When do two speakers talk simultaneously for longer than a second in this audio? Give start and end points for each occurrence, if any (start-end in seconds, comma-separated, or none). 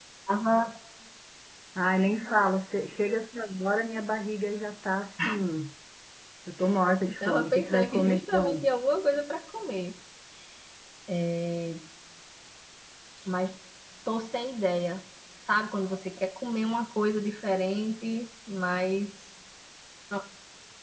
7.2-8.7